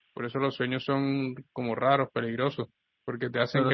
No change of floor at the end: Yes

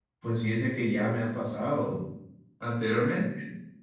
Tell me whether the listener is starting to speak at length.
No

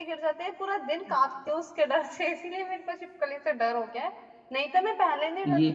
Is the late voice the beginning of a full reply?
No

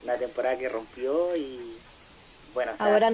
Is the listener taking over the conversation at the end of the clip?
No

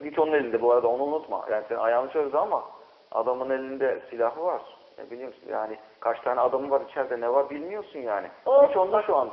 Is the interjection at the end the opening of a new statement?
Yes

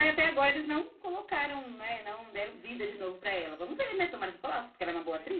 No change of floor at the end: No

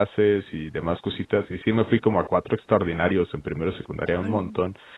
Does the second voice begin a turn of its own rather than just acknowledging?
No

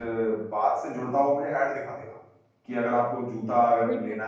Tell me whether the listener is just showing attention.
Yes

